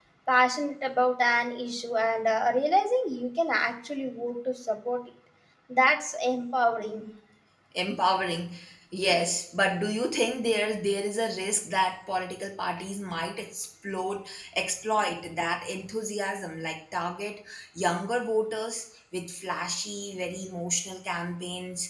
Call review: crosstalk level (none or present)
none